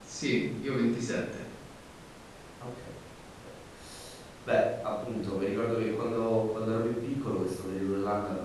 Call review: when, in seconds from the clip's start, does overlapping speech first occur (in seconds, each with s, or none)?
none